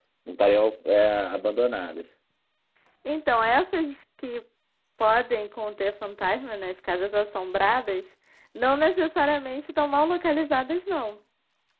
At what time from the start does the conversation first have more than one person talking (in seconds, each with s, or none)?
none